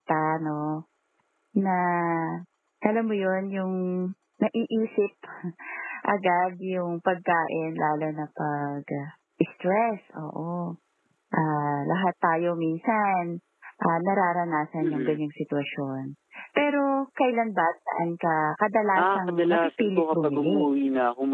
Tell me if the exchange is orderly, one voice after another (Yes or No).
No